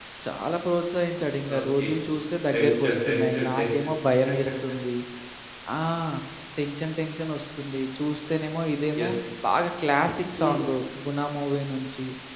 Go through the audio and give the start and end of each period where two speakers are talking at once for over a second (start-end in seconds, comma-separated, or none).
2.5-3.9